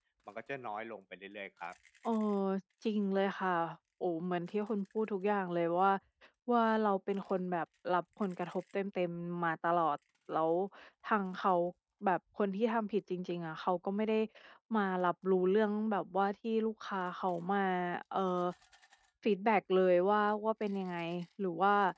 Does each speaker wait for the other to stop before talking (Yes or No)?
Yes